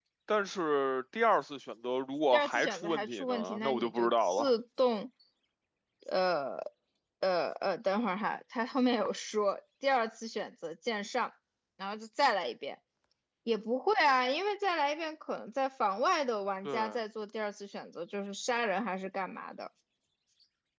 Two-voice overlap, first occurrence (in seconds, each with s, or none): 2.3 s